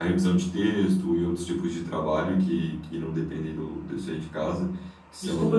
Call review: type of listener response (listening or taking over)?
taking over